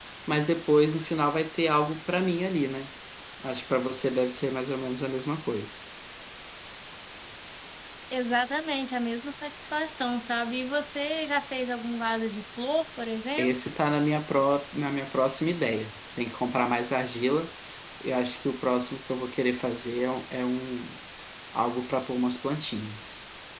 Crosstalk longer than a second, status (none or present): none